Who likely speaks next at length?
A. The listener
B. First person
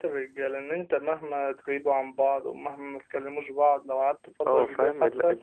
A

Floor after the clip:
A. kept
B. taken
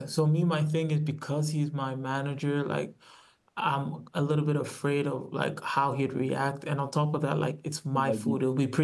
A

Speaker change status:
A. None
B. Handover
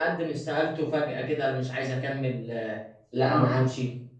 A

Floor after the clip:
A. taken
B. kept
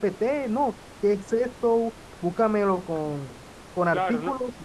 A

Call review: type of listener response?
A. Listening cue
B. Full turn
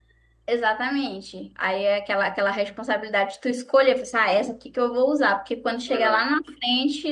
A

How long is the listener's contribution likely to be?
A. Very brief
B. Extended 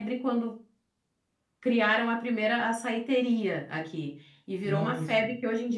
A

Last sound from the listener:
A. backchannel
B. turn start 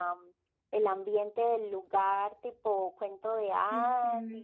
B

